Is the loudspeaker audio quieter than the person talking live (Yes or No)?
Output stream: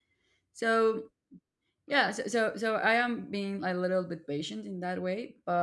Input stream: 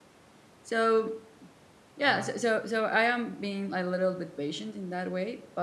No